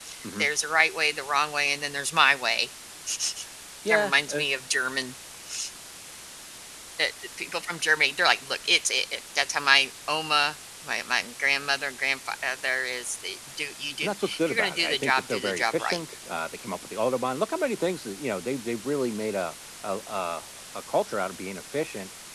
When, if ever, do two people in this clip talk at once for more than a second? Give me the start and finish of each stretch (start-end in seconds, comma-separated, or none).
14.0-16.0